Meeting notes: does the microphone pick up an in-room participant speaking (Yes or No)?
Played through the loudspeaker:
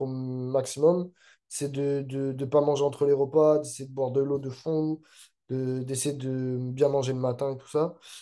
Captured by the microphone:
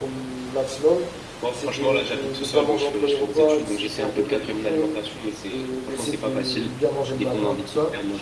Yes